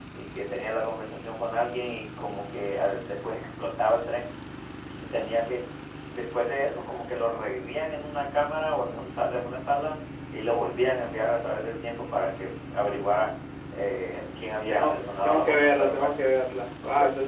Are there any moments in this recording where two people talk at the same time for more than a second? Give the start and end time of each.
14.7-16.1

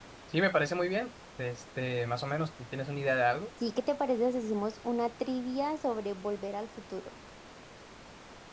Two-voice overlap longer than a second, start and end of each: none

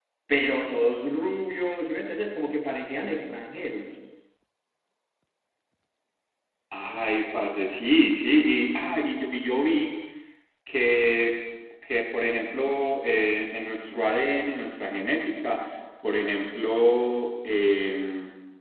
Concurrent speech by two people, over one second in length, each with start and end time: none

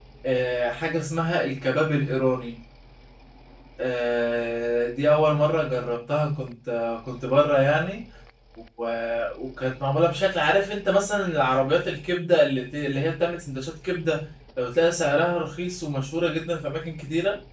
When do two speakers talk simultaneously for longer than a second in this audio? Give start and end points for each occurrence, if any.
none

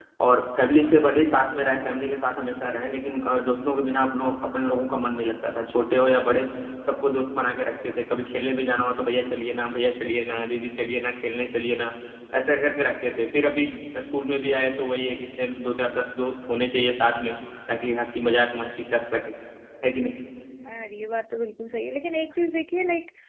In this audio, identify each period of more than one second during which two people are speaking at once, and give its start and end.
none

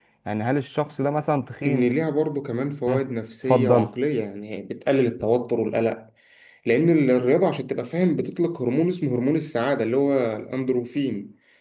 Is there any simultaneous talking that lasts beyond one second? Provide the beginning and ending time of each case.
none

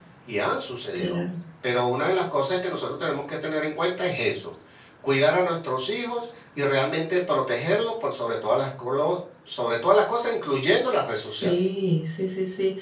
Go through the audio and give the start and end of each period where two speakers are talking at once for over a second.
none

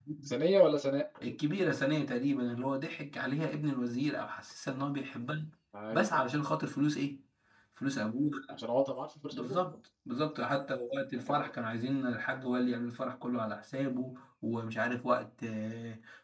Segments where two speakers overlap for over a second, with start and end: none

